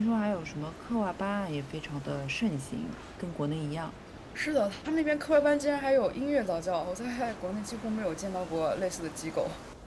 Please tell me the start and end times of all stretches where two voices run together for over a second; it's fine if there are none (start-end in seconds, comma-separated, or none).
none